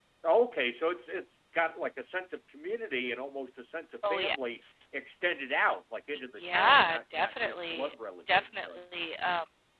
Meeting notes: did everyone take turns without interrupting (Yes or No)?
No